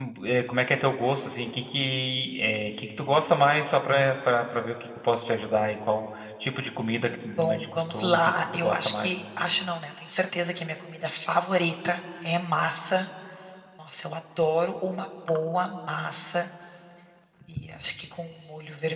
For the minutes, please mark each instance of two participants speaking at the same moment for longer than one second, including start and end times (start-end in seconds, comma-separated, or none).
7.0-9.1